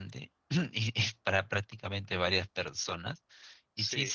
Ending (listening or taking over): listening